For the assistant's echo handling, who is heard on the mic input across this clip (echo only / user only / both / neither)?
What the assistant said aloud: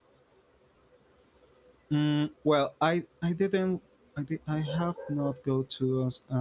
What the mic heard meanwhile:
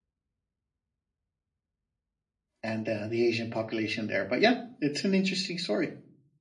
user only